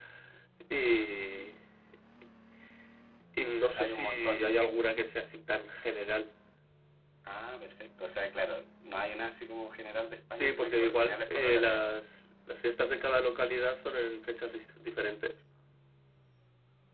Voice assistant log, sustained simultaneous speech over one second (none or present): present